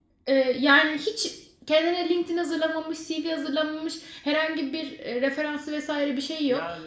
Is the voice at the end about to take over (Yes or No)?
Yes